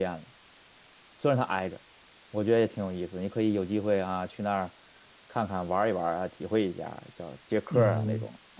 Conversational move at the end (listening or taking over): taking over